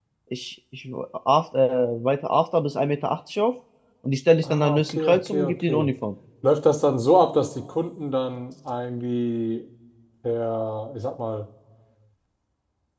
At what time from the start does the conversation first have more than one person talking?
4.4 s

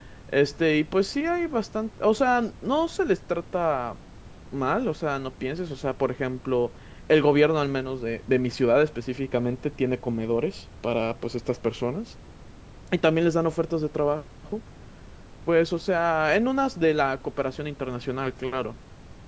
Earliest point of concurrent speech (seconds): none

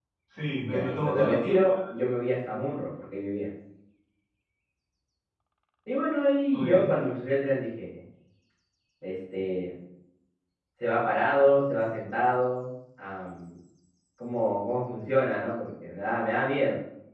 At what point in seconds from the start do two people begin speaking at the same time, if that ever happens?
0.6 s

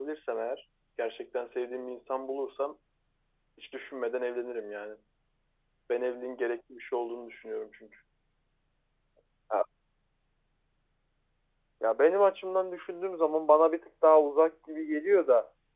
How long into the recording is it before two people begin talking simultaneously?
none

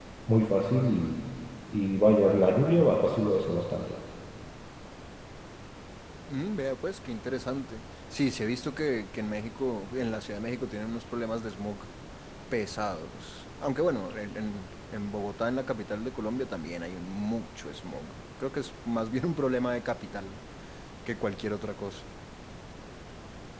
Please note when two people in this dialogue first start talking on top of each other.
none

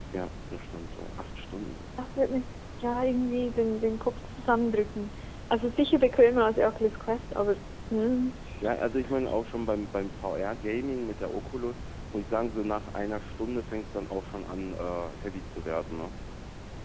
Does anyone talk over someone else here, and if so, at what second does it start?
none

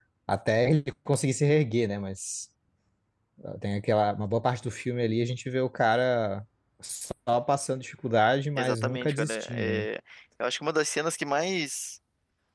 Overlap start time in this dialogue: 8.6 s

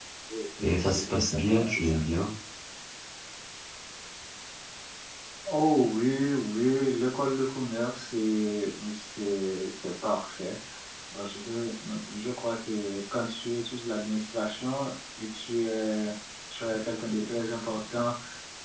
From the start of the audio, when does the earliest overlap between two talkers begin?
0.6 s

